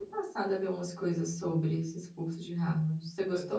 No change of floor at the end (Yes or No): No